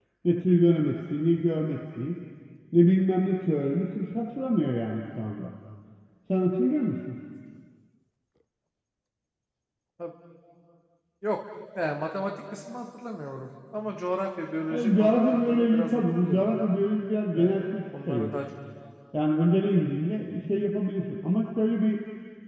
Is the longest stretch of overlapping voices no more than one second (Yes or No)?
No